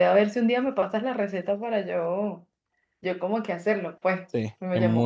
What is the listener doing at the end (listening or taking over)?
taking over